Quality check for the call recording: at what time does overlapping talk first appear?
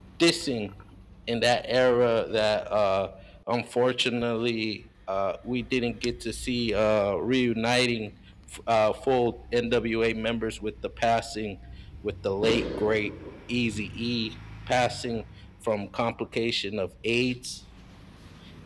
none

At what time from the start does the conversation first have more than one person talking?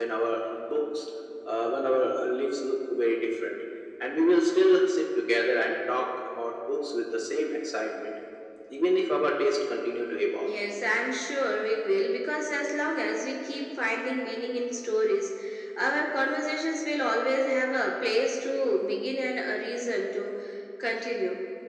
none

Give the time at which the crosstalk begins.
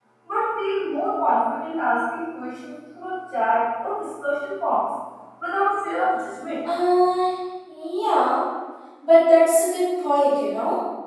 none

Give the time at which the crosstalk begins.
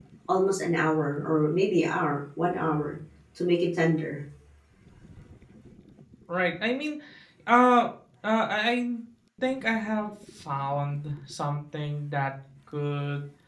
none

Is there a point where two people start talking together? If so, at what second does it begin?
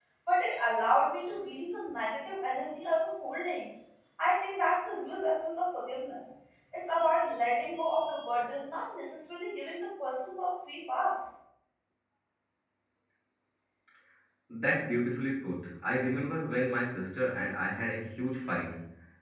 none

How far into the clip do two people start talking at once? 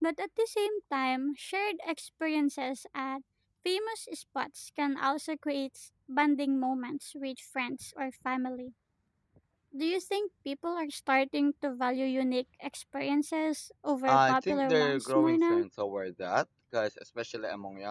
14.1 s

